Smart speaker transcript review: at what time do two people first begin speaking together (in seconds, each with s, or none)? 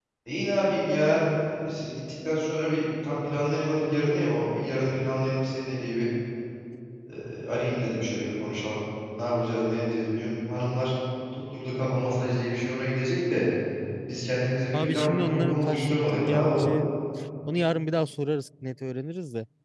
14.7 s